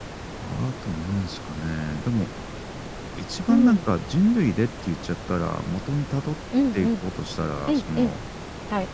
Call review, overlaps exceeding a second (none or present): none